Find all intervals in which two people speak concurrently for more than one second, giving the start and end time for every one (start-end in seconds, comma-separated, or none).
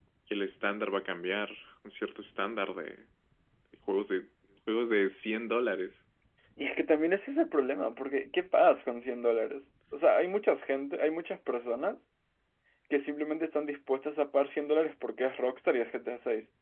none